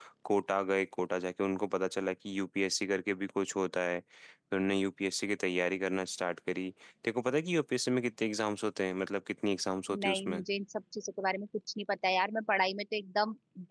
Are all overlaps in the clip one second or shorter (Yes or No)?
Yes